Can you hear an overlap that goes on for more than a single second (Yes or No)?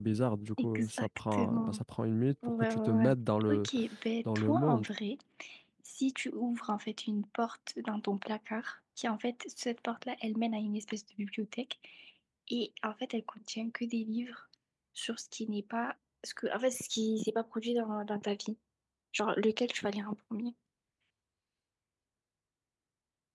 Yes